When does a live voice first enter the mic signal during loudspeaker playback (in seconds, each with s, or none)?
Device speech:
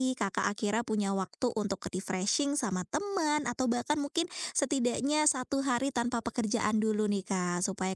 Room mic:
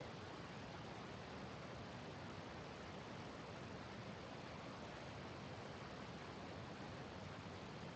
none